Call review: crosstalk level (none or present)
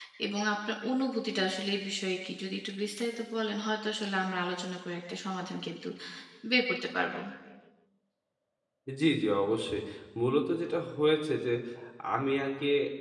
none